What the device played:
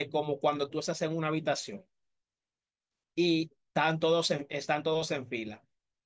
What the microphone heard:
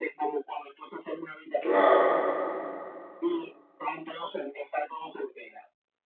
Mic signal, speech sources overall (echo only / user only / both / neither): both